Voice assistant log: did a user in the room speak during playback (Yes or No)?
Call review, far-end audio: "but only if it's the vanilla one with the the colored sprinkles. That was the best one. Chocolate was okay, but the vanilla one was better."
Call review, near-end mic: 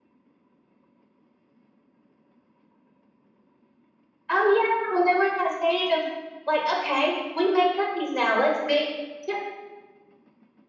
Yes